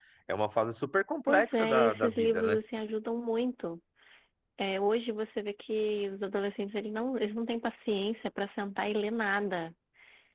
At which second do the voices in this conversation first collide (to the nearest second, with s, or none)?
1 s